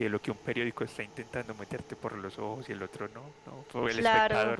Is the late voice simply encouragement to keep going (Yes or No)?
No